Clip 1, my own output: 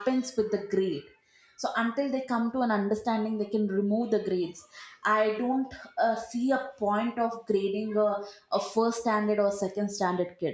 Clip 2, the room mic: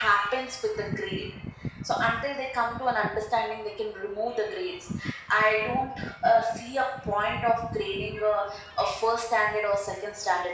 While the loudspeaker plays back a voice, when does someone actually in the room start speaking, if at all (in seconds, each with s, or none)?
none